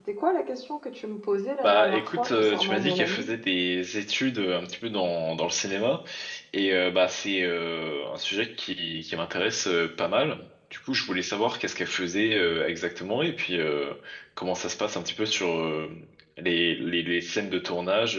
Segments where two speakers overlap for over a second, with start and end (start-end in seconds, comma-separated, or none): 1.6-3.3